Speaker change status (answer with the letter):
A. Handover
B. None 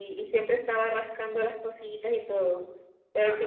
B